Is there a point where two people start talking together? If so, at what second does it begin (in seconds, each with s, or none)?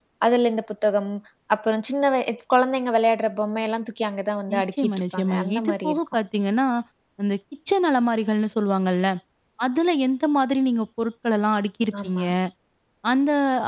4.5 s